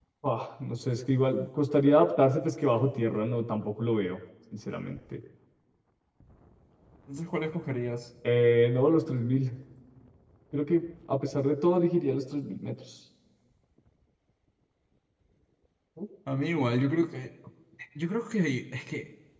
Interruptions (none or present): none